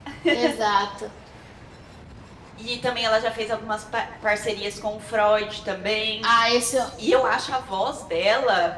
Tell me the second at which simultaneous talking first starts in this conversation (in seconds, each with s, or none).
none